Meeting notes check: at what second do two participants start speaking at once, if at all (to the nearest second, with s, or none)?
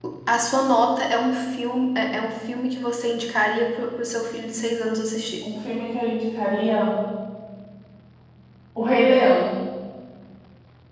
none